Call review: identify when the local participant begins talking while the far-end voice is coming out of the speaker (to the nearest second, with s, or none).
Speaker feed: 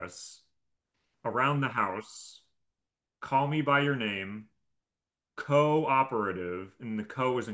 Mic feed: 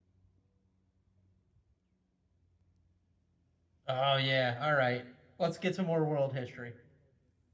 4 s